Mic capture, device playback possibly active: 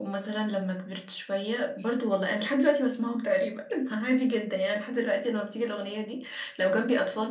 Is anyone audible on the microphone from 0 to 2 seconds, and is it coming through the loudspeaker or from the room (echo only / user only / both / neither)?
echo only